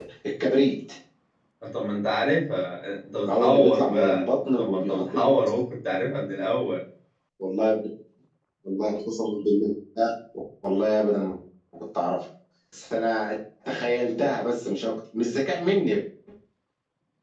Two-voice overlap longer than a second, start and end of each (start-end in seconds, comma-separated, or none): 3.2-5.3